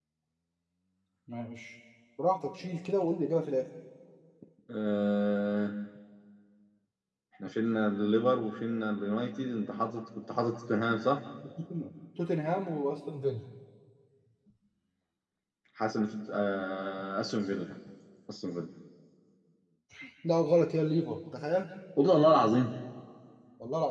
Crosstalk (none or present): none